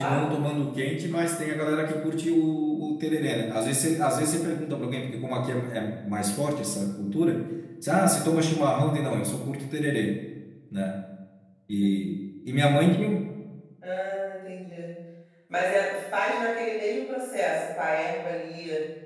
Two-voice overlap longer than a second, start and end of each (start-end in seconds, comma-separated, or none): none